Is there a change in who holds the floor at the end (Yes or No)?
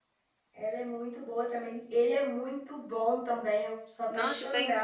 Yes